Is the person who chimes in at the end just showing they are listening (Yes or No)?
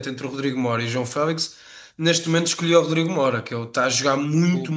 Yes